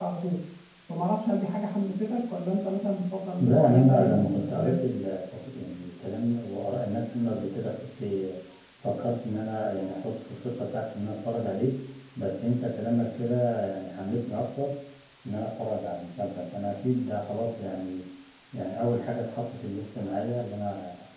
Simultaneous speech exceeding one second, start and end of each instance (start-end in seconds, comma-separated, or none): 3.4-4.8